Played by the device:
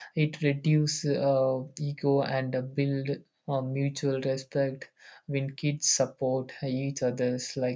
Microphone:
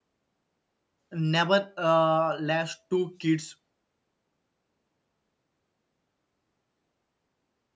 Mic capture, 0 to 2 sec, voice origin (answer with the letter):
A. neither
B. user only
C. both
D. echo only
B